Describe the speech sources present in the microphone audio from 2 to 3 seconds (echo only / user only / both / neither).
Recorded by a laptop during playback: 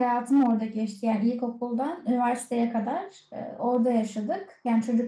user only